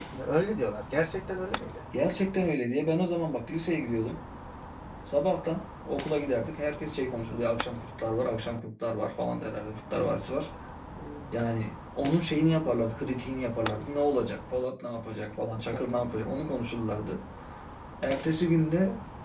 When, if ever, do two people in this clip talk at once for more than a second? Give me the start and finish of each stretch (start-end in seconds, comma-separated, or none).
none